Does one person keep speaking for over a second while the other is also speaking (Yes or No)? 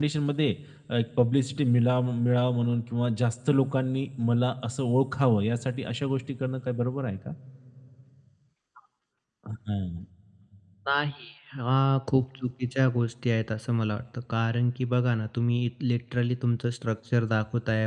No